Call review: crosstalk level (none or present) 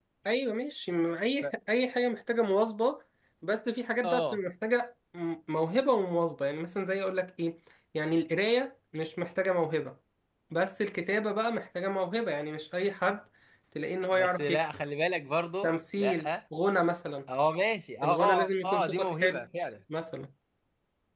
present